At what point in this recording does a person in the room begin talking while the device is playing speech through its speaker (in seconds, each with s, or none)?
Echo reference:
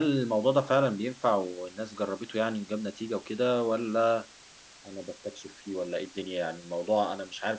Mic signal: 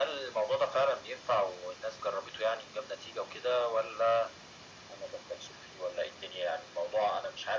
none